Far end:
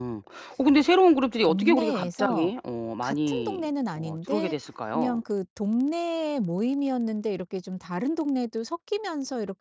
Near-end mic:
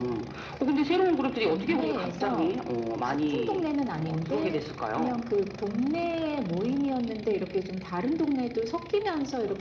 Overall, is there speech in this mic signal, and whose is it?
echo only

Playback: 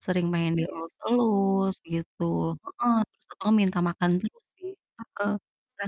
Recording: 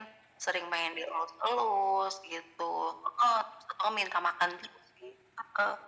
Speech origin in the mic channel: echo only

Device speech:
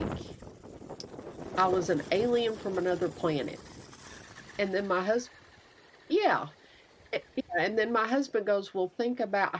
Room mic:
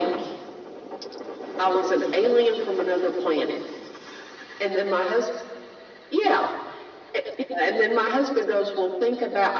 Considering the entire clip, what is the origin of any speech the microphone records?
echo only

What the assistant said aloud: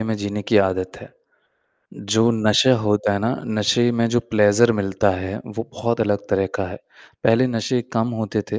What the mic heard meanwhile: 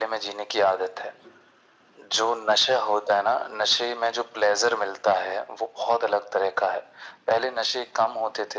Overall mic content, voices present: echo only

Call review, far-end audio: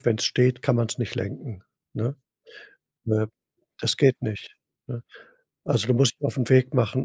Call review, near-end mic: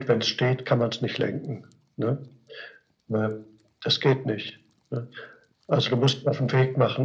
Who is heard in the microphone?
echo only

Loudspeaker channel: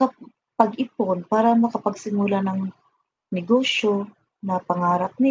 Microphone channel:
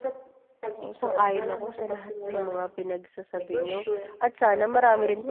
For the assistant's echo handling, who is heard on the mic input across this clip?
both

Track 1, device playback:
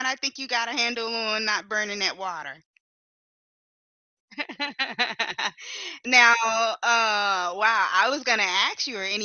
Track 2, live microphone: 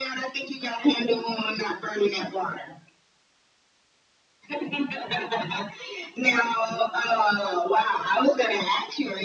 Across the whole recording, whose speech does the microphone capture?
echo only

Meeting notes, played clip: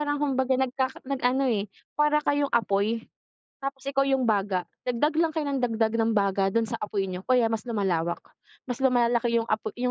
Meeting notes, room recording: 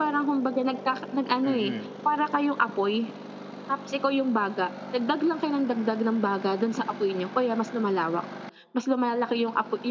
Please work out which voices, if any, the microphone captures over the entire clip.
both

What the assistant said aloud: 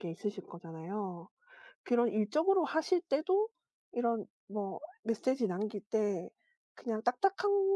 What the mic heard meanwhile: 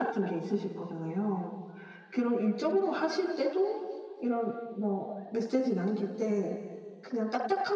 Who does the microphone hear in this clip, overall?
echo only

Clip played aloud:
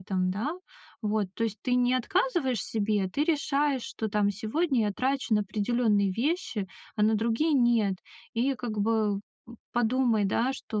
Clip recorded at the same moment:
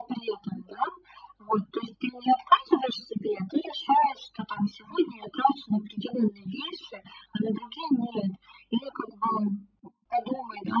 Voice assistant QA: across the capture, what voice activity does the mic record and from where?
echo only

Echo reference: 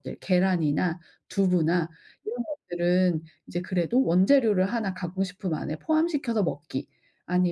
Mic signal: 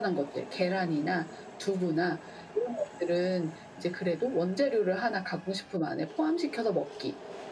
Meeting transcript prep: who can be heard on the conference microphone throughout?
echo only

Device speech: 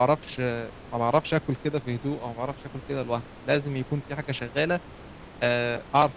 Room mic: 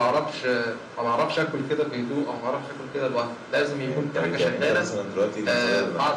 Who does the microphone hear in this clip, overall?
both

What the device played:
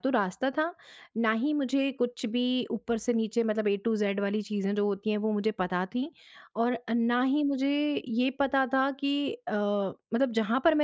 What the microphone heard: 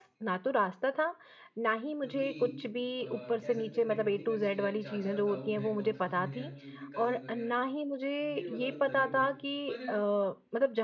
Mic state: both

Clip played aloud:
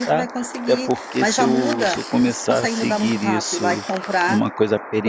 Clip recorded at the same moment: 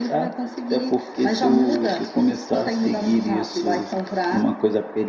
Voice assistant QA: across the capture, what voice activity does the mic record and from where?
echo only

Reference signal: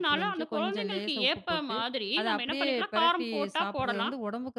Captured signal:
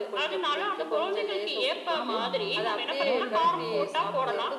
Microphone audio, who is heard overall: both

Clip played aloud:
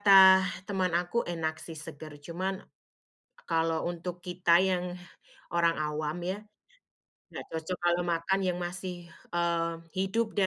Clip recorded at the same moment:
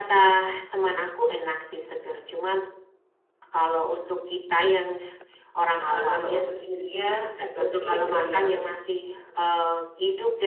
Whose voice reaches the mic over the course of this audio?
both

